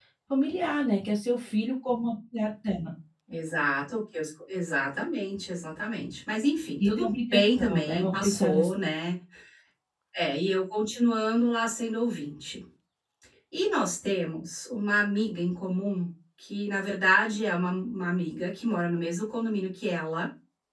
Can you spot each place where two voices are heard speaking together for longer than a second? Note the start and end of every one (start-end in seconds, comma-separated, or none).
6.8-8.7